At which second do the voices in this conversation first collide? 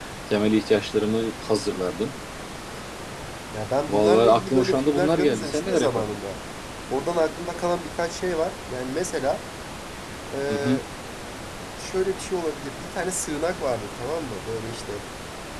3.9 s

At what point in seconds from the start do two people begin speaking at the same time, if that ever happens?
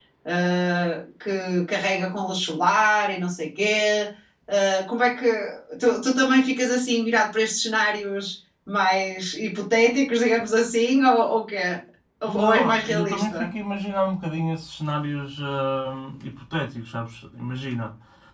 12.3 s

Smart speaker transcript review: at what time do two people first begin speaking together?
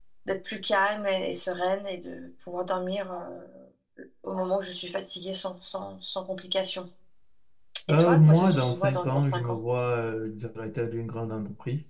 7.9 s

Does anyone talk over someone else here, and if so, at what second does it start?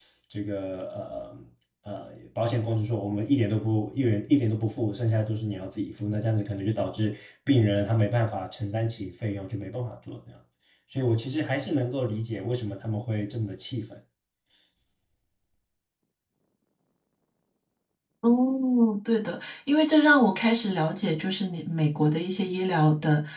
none

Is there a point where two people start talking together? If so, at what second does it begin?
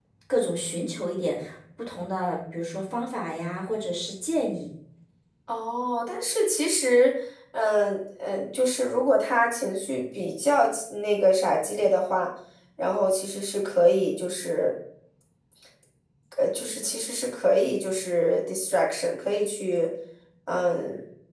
none

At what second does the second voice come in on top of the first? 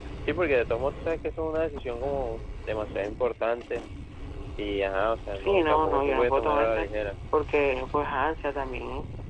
5.3 s

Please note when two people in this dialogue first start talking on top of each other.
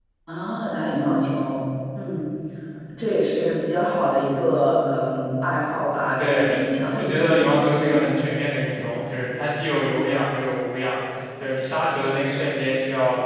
6.2 s

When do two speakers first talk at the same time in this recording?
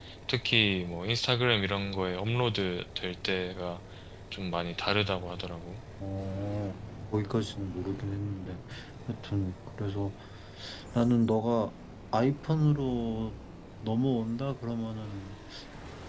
none

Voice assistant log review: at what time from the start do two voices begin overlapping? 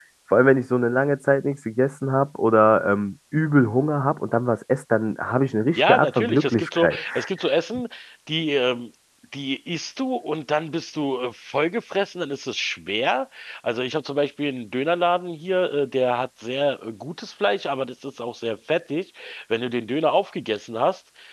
5.8 s

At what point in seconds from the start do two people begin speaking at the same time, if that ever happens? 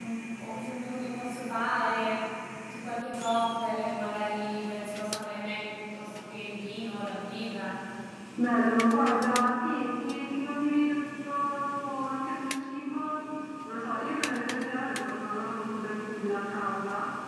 none

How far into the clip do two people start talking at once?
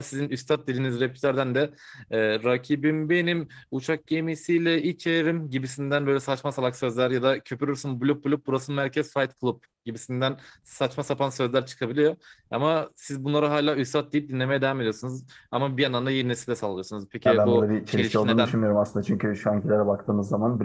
17.2 s

